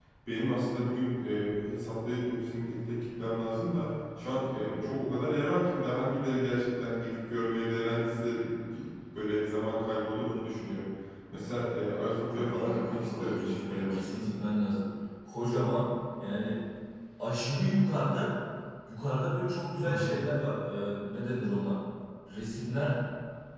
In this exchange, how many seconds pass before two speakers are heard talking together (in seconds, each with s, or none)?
12.3 s